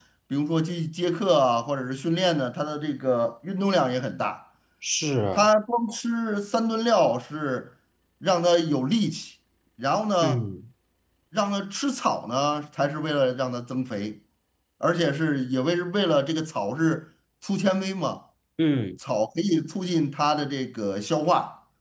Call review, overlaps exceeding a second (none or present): none